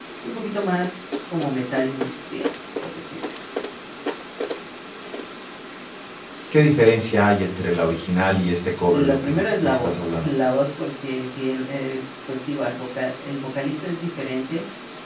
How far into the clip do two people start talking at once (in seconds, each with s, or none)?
8.9 s